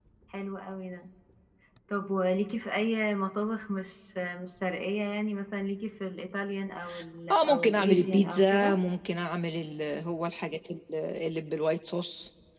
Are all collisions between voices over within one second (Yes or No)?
No